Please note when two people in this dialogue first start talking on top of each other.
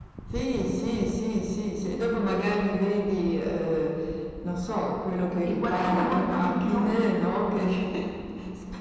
5.5 s

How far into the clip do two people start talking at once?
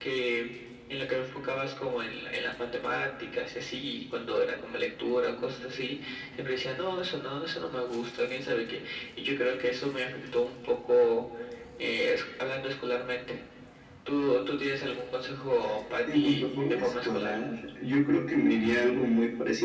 16.1 s

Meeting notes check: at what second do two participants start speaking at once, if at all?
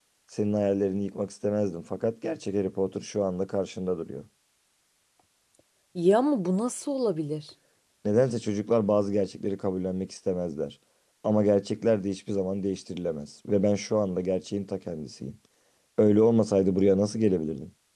none

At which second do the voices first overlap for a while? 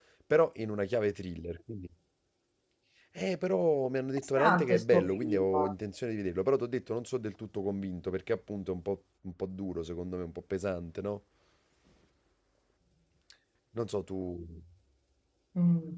4.2 s

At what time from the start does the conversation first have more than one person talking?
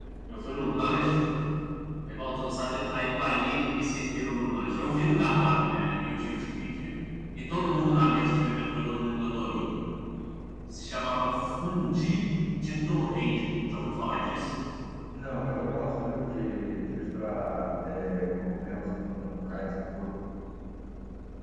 none

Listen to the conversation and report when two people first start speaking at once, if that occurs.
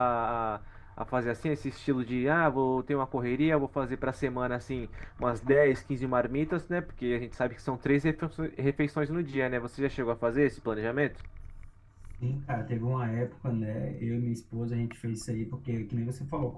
none

